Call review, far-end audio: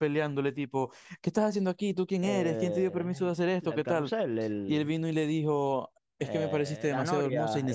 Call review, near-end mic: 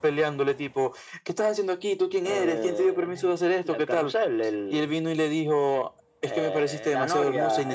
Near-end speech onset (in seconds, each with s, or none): none